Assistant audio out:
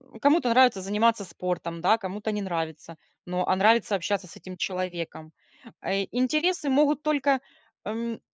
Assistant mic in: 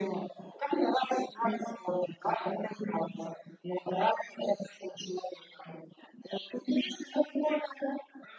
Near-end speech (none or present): none